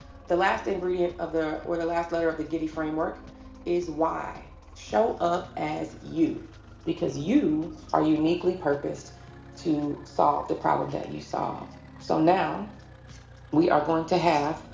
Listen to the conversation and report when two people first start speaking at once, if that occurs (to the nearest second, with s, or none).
none